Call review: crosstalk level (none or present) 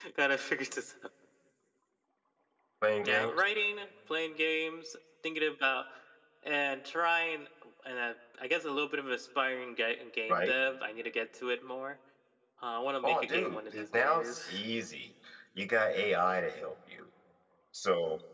present